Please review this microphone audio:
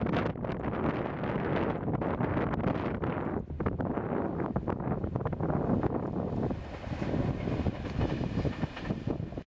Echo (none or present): none